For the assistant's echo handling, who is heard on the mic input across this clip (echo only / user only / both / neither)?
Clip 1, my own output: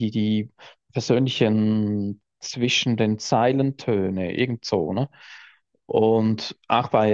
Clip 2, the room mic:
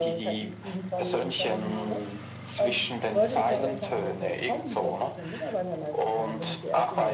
both